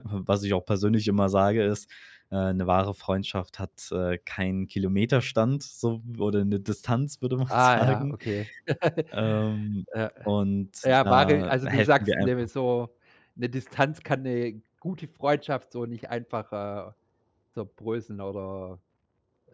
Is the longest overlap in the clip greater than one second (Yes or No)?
Yes